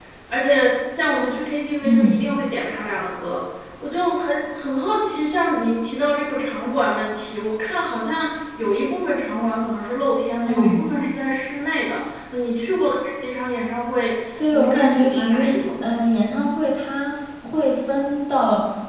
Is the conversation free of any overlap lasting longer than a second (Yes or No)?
No